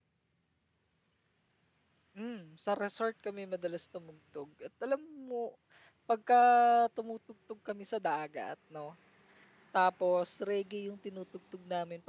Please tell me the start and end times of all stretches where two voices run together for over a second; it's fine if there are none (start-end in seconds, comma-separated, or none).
none